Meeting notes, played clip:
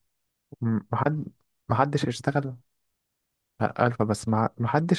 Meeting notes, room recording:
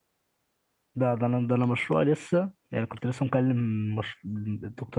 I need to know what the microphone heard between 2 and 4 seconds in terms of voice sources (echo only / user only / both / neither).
user only